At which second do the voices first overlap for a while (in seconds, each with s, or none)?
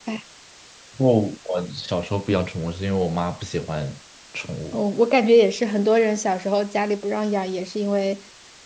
none